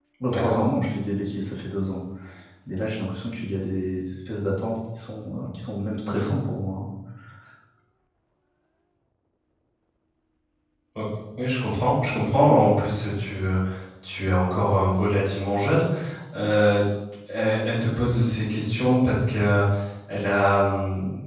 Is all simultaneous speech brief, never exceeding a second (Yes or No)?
Yes